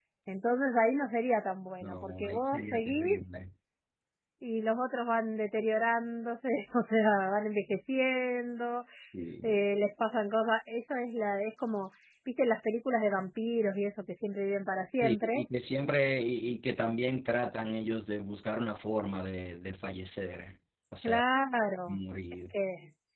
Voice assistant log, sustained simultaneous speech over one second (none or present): present